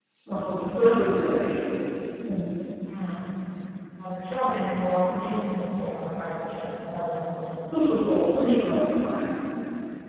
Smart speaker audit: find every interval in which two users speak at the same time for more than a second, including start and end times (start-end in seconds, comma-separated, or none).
none